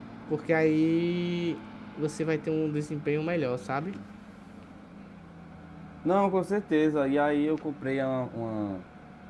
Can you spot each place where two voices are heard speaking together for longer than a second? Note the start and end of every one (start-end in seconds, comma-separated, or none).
none